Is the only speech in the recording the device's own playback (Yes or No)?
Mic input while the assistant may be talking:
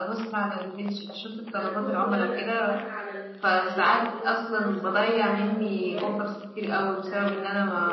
No